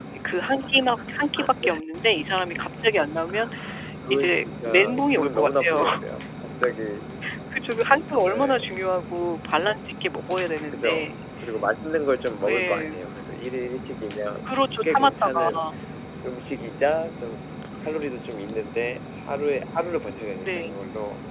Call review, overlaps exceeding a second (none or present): present